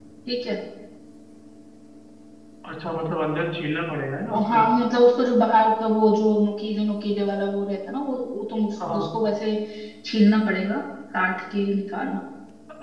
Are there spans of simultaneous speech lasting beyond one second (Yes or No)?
No